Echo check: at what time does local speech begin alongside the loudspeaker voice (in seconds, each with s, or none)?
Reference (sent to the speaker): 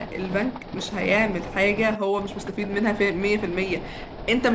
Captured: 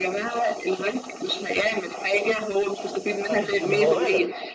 3.3 s